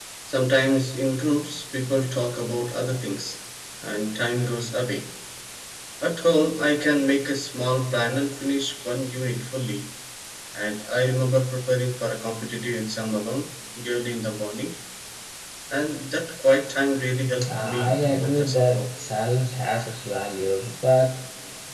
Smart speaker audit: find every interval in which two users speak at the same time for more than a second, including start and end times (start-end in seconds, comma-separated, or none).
17.5-18.9